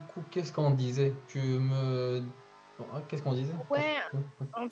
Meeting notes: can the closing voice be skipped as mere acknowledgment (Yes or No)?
No